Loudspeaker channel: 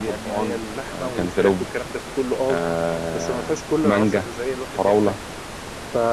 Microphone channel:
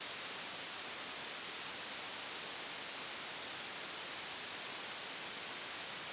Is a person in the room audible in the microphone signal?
No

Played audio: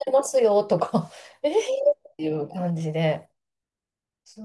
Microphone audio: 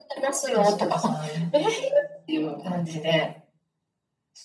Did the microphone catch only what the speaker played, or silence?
No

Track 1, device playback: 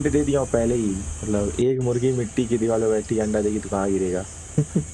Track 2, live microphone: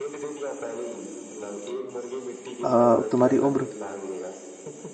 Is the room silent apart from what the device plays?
No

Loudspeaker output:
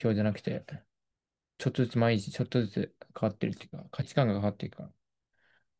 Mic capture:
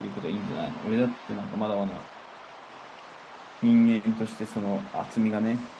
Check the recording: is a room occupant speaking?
Yes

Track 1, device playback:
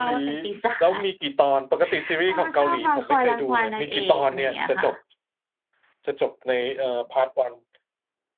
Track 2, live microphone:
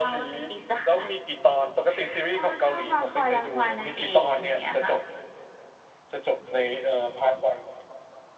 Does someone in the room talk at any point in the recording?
No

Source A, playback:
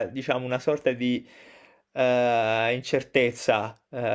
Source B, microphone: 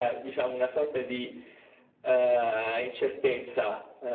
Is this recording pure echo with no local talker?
Yes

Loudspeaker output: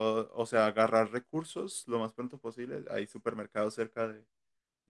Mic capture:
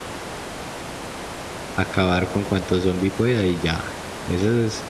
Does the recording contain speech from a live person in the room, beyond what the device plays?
Yes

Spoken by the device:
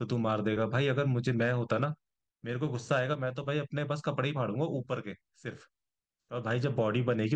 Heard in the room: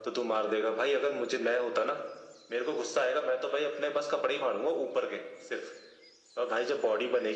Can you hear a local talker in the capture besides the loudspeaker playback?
No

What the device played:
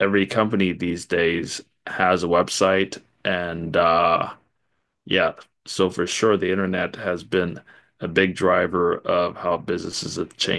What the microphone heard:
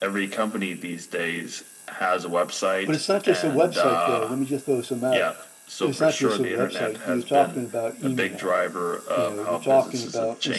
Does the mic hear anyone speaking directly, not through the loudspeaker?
Yes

